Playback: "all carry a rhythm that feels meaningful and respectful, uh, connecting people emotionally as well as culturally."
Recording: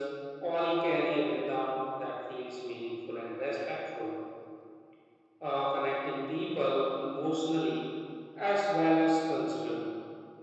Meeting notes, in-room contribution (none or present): none